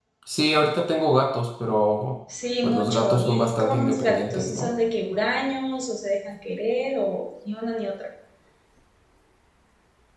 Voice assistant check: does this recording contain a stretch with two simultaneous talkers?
Yes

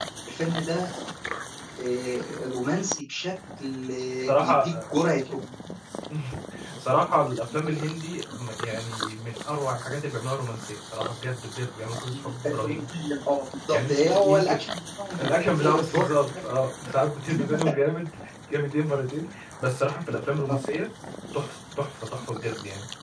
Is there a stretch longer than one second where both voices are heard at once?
Yes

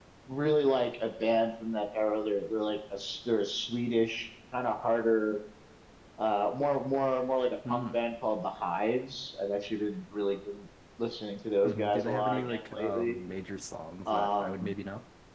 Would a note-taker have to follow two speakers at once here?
Yes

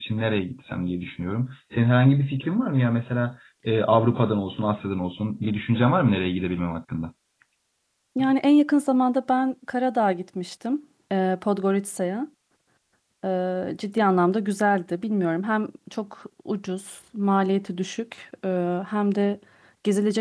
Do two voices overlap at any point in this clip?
No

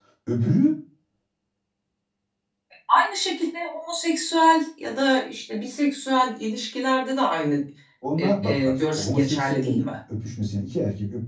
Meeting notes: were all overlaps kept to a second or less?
No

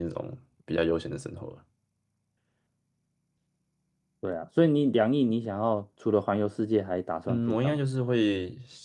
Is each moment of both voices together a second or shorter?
Yes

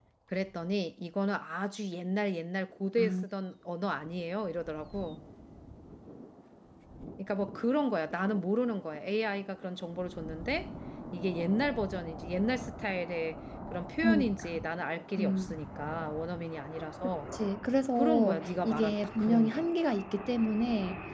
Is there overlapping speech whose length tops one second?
Yes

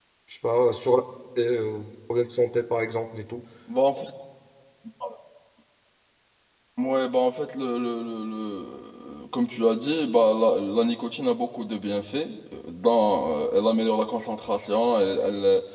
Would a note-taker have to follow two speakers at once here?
No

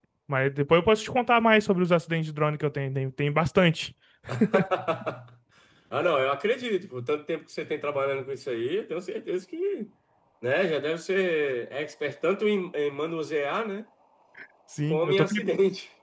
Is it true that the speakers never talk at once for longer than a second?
Yes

